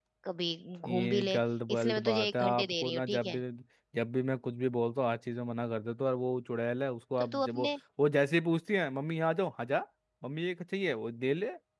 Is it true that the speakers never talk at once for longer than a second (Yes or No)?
No